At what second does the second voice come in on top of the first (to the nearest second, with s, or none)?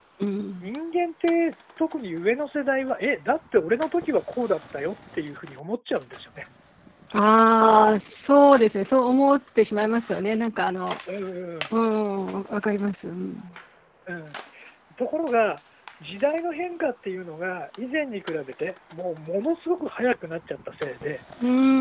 none